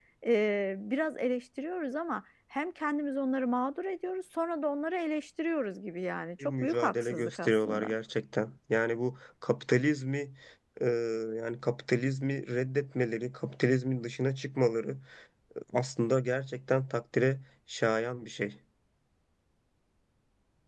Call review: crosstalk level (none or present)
present